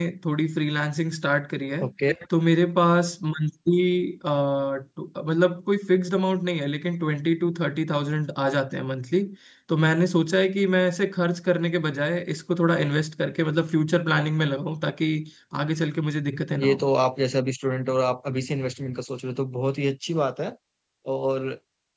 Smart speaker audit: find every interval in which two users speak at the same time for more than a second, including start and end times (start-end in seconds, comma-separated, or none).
none